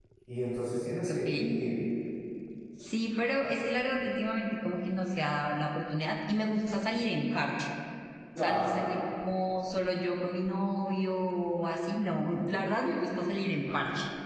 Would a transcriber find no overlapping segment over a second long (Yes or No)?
Yes